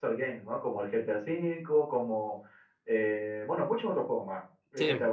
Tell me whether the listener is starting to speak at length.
No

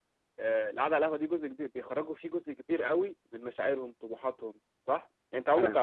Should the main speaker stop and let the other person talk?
No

